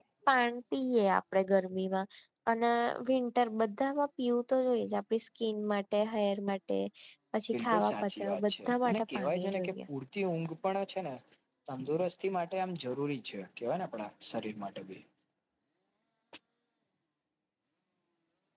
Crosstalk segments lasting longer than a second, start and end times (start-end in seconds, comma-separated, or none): 7.5-9.7